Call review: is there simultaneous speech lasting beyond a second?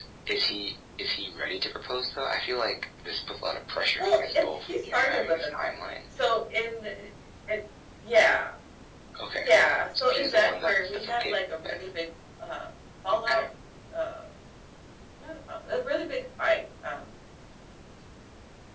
Yes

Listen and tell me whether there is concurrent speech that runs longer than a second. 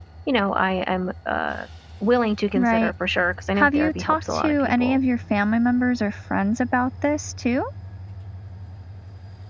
Yes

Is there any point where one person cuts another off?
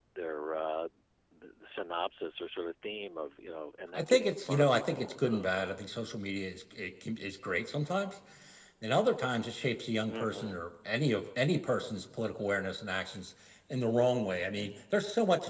Yes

